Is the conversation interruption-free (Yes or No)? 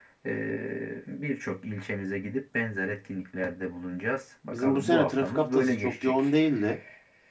No